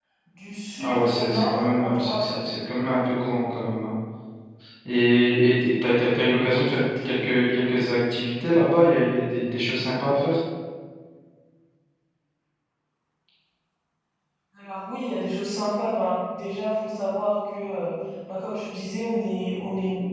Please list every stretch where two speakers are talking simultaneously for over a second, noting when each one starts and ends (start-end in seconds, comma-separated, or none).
0.8-2.4